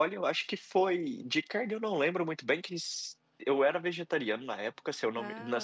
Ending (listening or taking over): listening